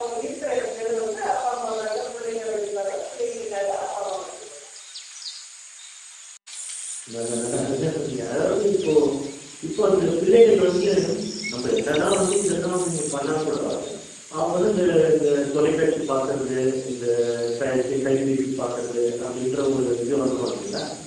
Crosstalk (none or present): none